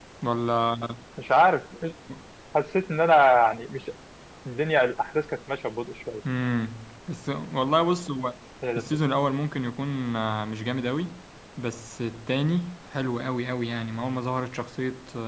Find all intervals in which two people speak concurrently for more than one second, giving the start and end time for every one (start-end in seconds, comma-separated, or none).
none